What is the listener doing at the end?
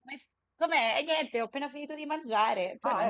taking over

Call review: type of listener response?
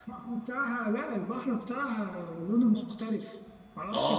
taking over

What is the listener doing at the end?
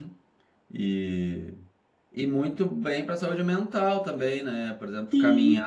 listening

